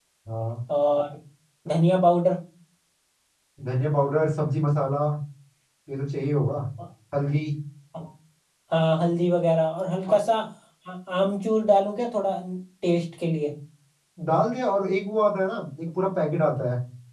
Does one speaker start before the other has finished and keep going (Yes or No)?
No